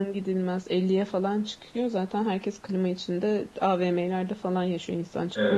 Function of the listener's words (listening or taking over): taking over